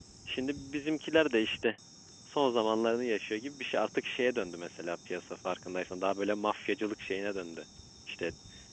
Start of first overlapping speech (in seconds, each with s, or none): none